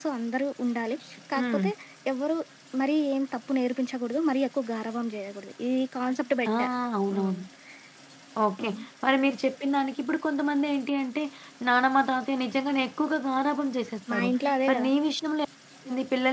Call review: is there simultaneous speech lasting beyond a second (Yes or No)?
No